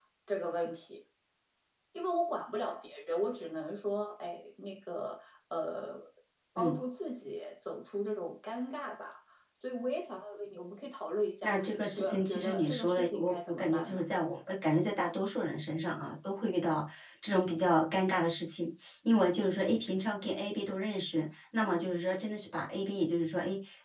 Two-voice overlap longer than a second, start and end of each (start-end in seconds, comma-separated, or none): 11.4-14.0